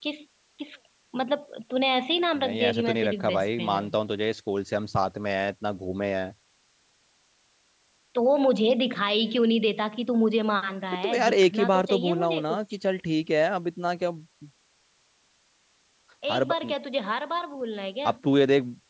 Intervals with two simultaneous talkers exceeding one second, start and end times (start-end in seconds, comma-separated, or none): 2.4-3.9, 11.0-12.6